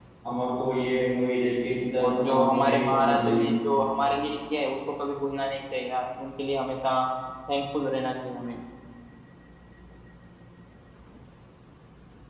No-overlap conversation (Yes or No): No